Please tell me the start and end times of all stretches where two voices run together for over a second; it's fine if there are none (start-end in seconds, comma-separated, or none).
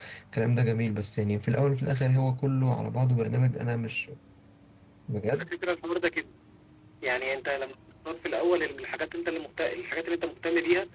none